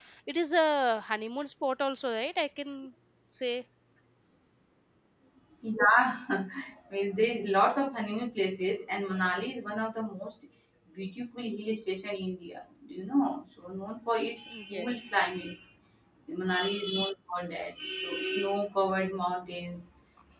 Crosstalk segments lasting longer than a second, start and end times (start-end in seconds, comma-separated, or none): none